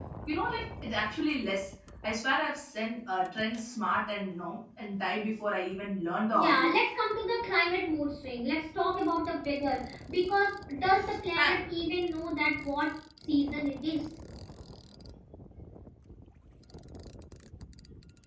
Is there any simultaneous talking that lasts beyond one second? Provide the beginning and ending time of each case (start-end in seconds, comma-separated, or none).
none